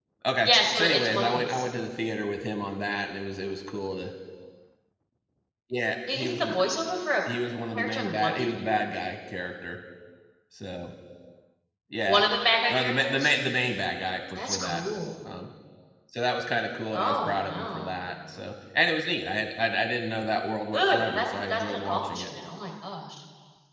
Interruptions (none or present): present